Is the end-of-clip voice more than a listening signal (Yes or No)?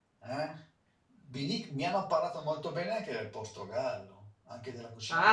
Yes